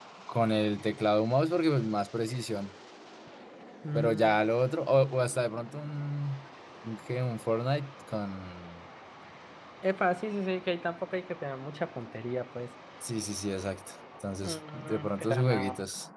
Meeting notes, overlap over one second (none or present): present